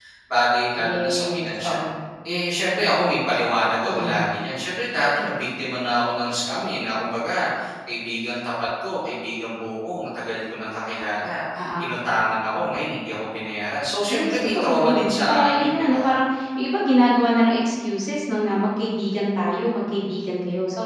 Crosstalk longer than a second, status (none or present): present